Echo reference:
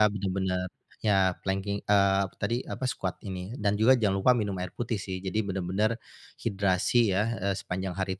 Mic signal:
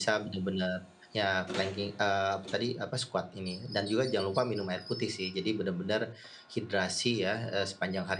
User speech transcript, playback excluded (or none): none